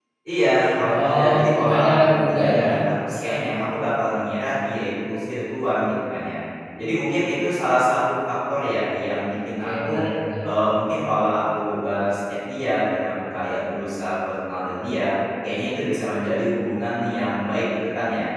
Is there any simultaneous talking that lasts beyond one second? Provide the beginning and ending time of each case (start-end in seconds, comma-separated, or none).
1.0-2.6